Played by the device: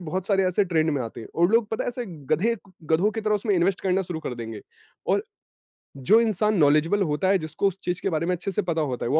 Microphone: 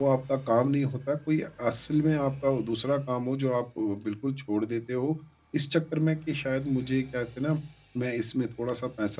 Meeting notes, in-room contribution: present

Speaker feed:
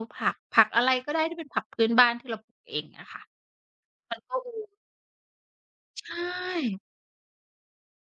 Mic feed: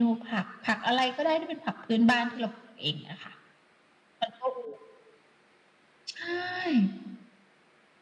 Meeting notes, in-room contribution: none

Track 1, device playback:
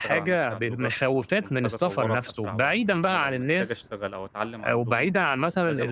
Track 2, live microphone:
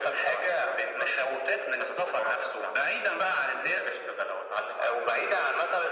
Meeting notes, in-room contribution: none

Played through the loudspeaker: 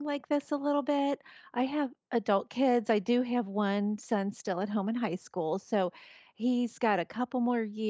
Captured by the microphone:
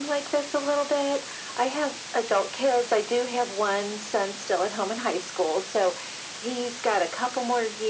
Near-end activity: none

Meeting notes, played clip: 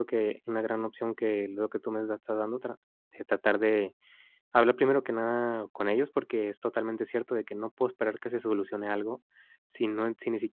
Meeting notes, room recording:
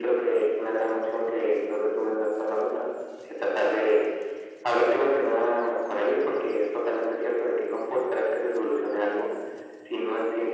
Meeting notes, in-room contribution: none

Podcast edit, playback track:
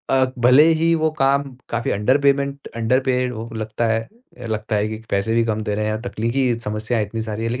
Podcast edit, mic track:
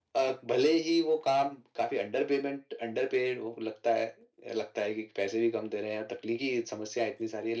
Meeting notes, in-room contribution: none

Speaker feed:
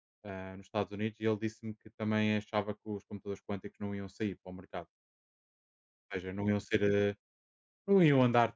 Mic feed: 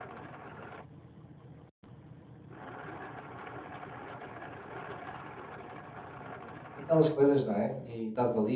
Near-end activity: present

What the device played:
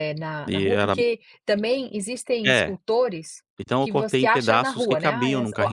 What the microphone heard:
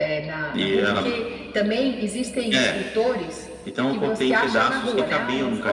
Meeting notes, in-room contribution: none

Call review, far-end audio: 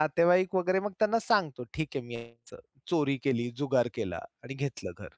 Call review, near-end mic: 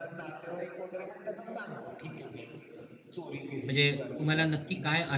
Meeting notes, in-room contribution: present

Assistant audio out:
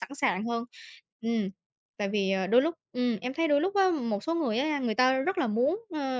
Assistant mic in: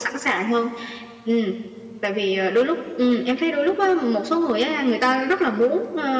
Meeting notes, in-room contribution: none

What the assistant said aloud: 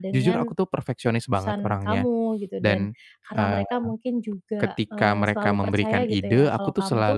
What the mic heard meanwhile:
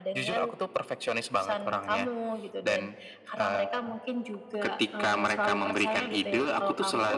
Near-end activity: none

